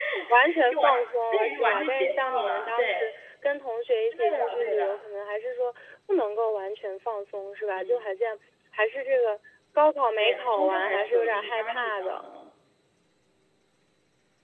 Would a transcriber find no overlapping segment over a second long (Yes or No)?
No